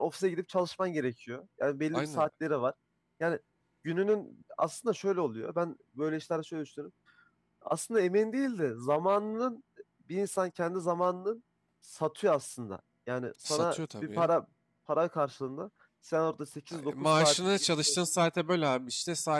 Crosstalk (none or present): present